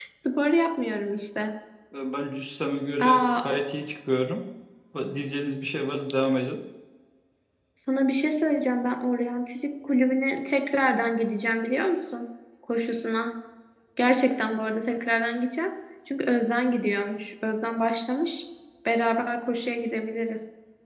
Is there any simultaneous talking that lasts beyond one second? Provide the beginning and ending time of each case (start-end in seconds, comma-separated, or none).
none